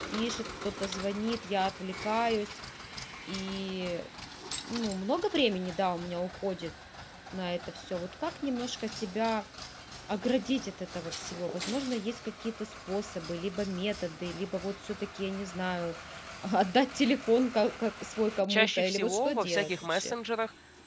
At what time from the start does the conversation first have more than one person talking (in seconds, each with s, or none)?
18.5 s